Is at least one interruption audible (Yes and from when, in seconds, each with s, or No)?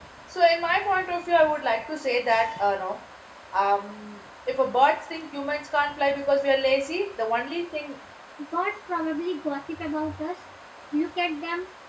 No